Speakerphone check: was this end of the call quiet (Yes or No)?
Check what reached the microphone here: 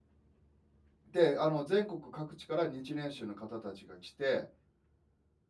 No